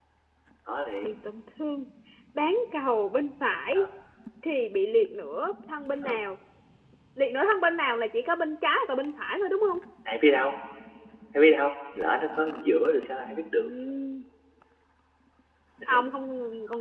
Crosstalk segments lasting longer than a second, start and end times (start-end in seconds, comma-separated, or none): none